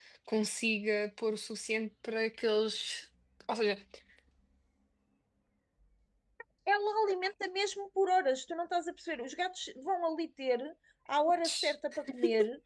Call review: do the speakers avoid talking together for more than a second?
Yes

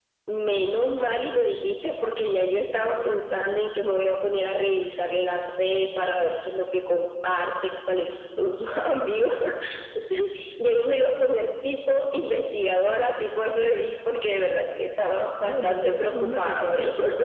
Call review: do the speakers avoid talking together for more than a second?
No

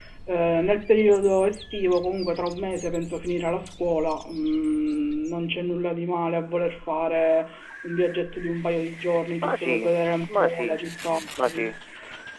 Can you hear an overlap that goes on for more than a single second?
No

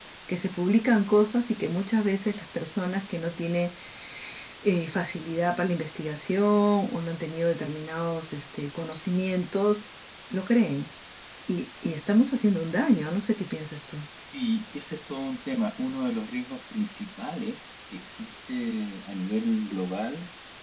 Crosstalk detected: No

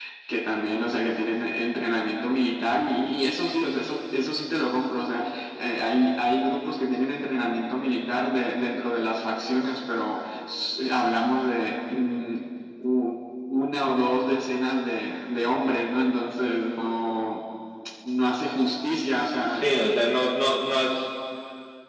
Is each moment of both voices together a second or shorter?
Yes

